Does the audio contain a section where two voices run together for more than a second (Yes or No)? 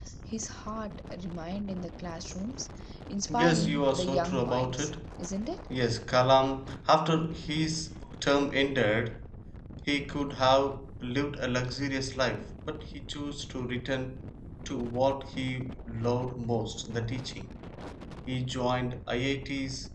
Yes